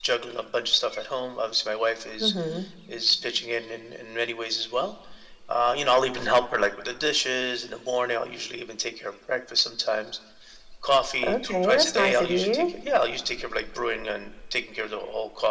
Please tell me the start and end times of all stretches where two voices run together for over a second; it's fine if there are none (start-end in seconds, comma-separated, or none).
11.2-12.7